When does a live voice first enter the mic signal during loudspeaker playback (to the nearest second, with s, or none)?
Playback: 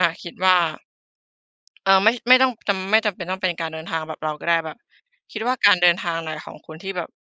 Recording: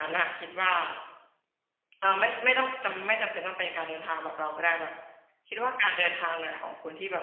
none